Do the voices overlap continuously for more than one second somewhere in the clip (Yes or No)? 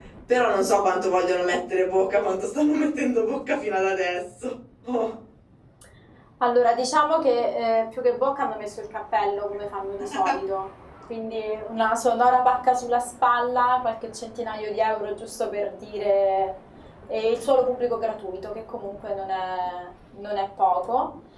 No